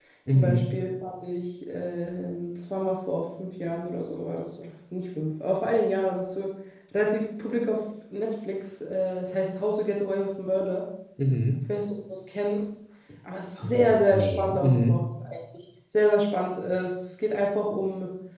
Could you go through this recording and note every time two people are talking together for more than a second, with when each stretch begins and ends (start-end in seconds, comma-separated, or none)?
13.6-15.0